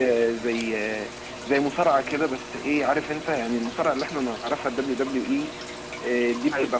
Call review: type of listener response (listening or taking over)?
listening